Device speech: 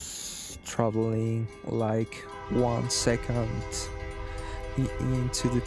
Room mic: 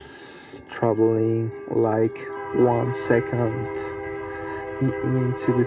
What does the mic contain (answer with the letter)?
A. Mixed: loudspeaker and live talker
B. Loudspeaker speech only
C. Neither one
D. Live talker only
B